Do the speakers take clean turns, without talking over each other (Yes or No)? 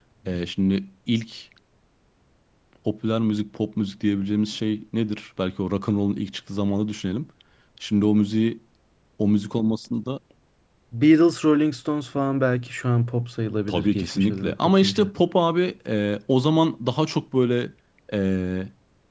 No